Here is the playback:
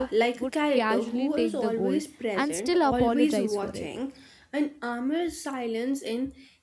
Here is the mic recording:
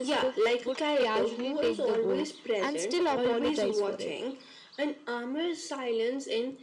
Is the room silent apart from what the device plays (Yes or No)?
Yes